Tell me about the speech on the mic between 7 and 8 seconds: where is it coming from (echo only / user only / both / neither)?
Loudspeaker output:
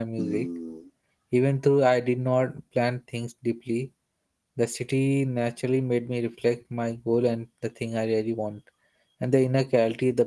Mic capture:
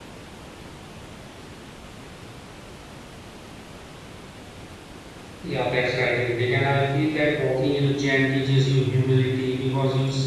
user only